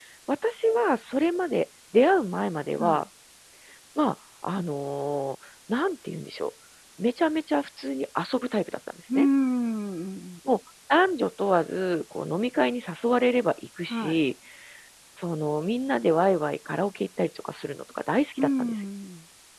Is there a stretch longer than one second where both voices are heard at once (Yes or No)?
No